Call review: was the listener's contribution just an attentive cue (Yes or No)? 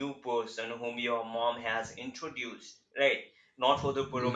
Yes